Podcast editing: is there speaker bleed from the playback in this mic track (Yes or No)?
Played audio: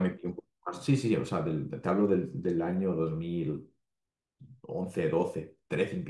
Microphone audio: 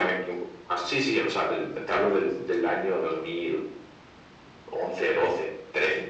Yes